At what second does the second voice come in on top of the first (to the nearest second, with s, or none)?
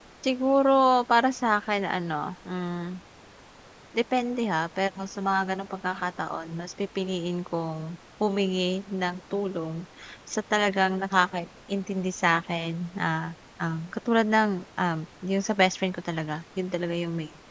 none